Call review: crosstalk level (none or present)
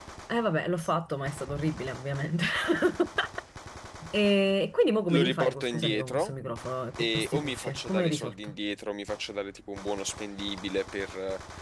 present